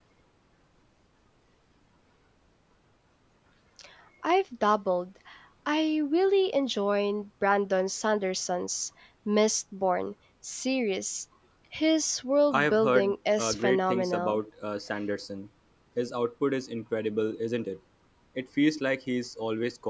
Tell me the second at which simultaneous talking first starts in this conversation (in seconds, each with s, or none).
12.5 s